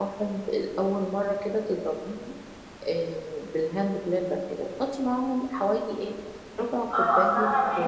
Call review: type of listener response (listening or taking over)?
taking over